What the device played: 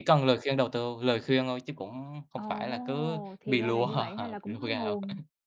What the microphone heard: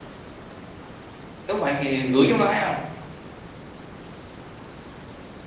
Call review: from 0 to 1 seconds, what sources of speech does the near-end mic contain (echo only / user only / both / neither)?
neither